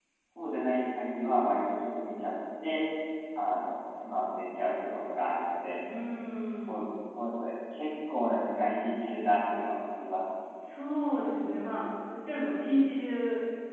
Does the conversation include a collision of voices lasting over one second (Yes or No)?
No